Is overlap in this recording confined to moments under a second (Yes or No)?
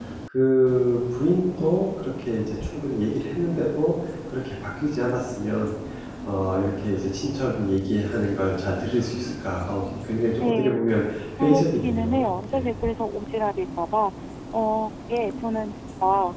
No